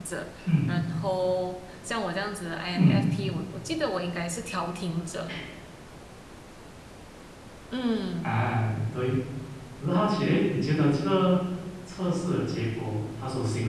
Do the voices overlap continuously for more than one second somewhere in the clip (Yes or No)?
No